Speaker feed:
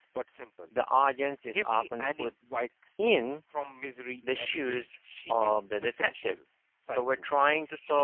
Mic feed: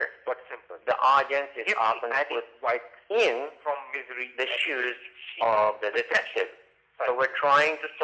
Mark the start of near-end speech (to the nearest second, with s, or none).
none